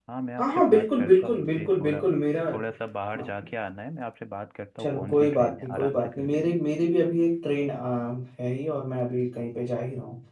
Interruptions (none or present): present